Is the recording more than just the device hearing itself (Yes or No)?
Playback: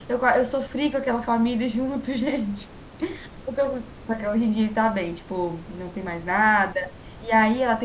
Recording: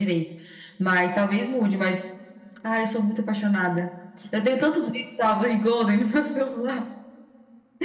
Yes